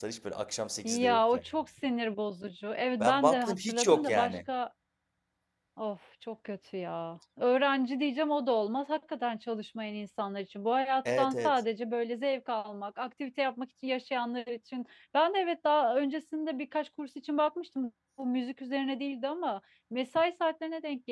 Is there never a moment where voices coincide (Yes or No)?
No